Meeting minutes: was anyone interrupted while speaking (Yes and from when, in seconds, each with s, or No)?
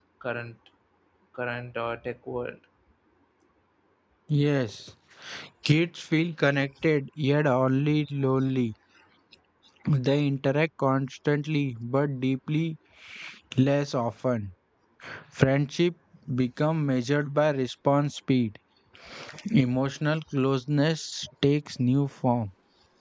No